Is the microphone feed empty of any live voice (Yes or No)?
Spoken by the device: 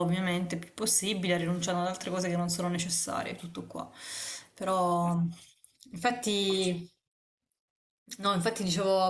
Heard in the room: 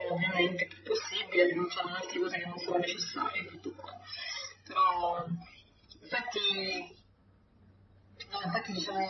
Yes